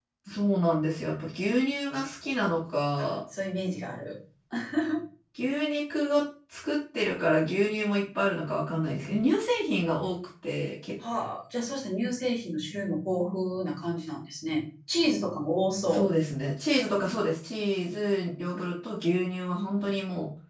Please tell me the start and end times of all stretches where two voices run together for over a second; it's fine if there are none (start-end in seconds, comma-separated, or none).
none